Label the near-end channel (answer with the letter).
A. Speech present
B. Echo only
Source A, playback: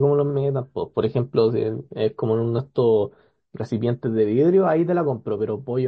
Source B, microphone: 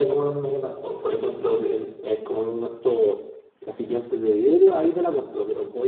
B